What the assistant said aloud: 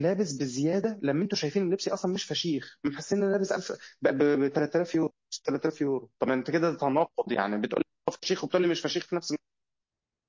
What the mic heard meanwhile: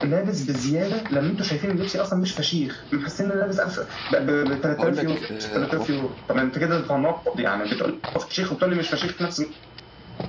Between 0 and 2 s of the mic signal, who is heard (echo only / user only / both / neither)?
echo only